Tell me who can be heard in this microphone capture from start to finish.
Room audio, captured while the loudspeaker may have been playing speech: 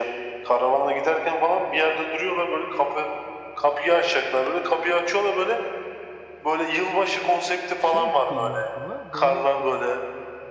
both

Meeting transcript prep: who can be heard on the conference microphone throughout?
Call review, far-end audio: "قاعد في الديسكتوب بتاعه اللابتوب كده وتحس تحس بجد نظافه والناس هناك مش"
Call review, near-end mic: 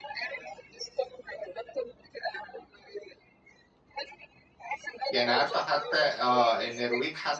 both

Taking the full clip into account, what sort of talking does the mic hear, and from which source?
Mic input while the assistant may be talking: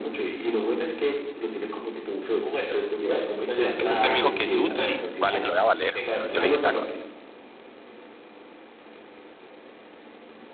both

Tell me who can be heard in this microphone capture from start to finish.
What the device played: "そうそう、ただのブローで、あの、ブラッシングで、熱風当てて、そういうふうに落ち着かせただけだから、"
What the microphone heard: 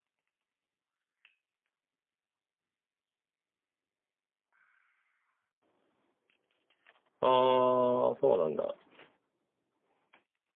user only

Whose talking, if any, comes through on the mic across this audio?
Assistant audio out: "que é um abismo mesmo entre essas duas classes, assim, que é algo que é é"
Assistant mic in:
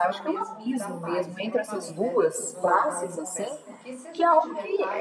both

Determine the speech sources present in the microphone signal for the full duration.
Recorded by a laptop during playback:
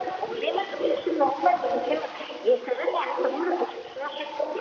echo only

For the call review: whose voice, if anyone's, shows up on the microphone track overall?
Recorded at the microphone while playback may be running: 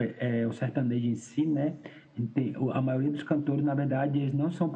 echo only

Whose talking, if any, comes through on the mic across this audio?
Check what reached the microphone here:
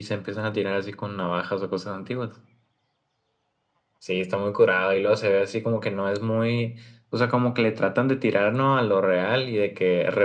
echo only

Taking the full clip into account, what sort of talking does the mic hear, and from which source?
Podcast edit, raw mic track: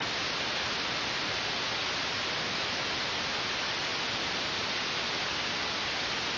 neither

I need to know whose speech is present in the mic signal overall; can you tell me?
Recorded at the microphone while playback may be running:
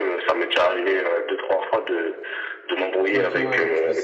both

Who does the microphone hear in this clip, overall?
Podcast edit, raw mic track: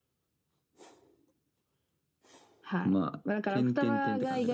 echo only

